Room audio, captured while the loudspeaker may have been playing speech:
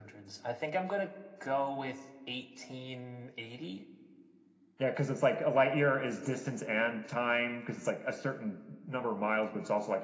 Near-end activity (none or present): none